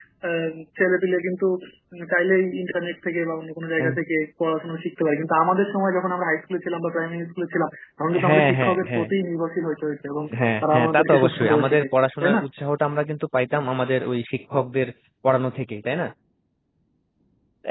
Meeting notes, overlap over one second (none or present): present